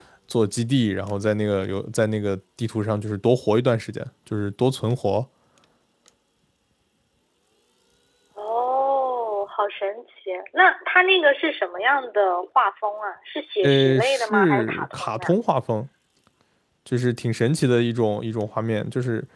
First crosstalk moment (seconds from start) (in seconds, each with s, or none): 13.6 s